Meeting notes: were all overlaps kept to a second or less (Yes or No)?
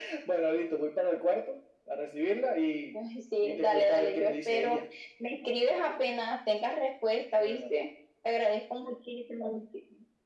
No